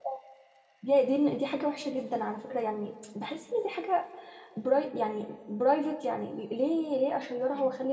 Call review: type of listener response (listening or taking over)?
listening